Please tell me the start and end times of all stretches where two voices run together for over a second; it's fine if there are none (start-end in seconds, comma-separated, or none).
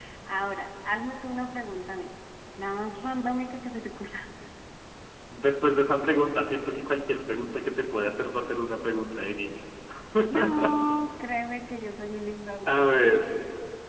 none